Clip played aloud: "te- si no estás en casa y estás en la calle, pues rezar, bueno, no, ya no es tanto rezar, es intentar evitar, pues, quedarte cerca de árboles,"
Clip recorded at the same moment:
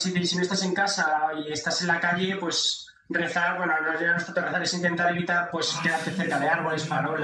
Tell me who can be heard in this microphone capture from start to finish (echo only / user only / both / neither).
both